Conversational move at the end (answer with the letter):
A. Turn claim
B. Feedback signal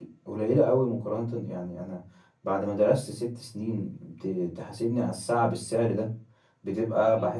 B